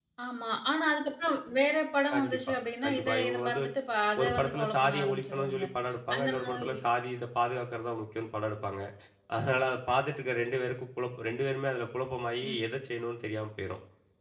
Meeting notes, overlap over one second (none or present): present